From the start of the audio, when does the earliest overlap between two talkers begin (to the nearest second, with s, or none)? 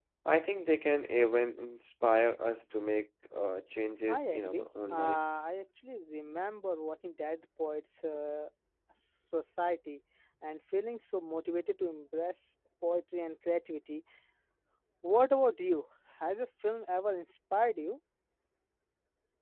4 s